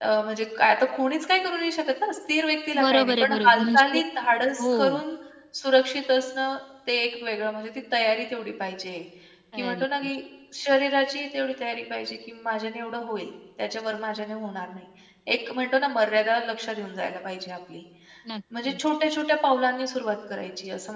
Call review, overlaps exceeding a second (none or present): present